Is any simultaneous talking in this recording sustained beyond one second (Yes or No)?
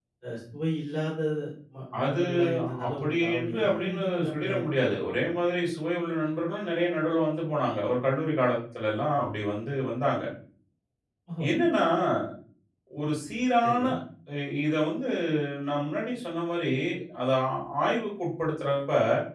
Yes